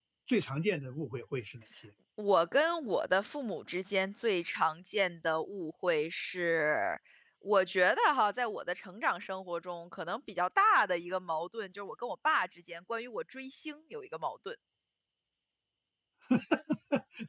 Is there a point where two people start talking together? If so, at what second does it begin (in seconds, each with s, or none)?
none